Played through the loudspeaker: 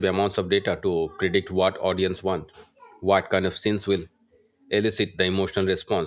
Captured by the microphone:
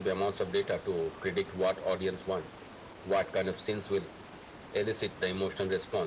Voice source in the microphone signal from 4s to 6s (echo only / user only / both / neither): echo only